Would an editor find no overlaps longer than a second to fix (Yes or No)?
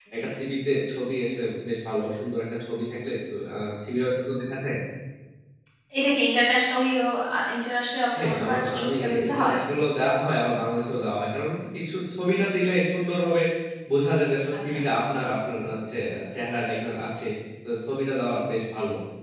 No